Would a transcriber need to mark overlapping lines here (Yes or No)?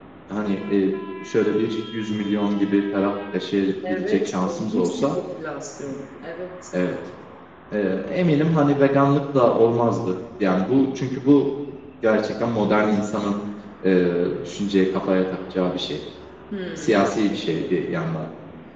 Yes